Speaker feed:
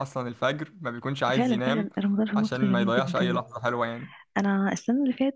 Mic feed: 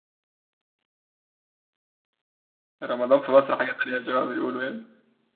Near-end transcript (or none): رمضان في مصر حاجة تانية زي ما بيقولوا يعني